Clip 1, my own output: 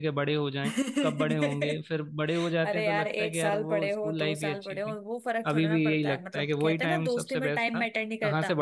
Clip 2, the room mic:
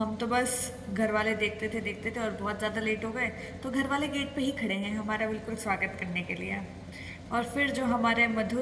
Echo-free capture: Yes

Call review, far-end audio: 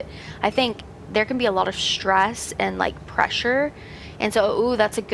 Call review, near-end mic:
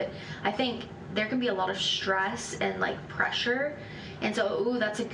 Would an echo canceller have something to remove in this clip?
Yes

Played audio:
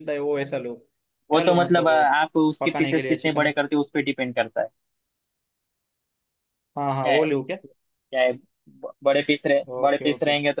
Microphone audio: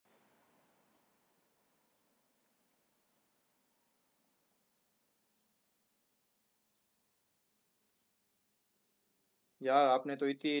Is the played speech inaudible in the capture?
Yes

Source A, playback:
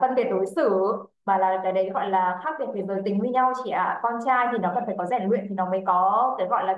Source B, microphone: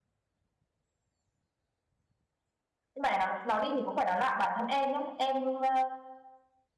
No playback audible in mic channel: Yes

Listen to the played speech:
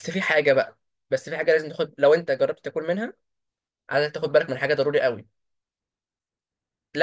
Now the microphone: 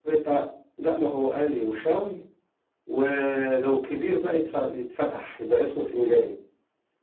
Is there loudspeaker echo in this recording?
No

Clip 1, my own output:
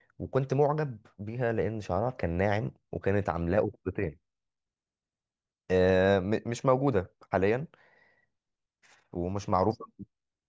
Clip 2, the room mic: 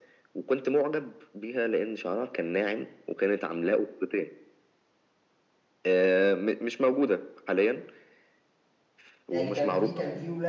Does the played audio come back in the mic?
Yes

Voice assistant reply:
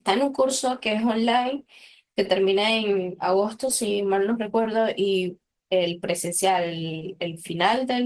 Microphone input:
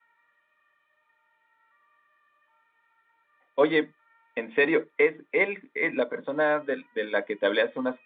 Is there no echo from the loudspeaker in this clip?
Yes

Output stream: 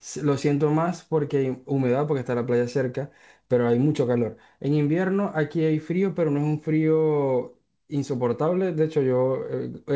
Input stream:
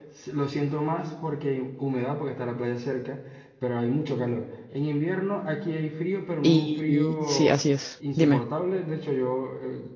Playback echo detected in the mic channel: Yes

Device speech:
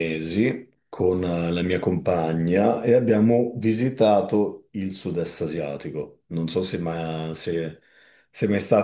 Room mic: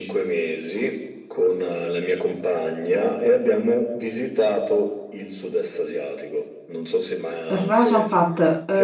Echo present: Yes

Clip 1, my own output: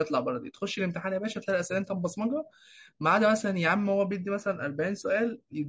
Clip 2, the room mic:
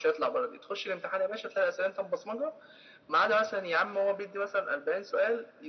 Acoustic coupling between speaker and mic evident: Yes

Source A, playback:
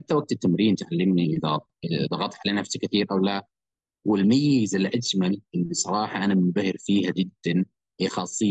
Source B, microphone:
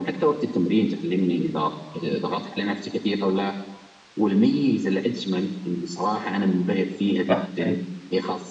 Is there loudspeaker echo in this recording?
Yes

